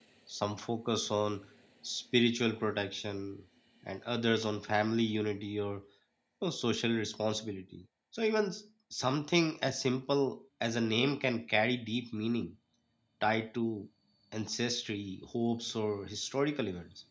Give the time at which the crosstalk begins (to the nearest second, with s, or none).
none